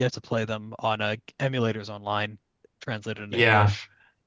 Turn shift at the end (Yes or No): Yes